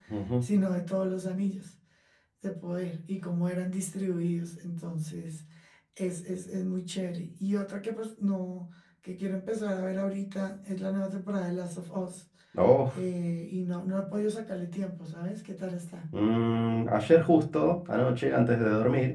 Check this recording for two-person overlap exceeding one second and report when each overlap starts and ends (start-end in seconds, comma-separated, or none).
none